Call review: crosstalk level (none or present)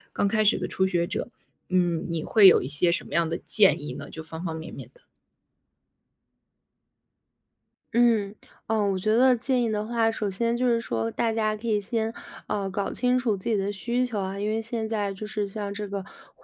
none